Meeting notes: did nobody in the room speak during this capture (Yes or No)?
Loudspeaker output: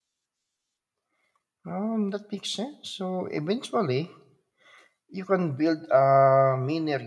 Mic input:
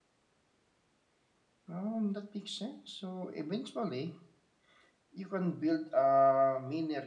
Yes